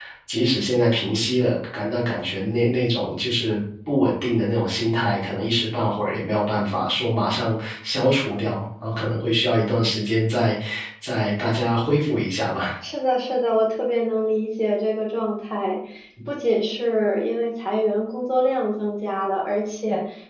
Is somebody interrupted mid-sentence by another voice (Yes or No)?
No